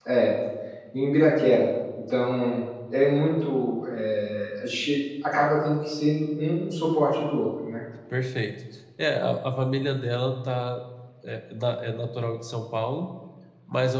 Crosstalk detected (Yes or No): No